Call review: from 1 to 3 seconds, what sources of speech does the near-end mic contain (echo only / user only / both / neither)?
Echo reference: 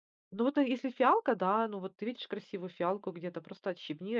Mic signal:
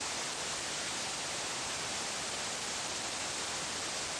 neither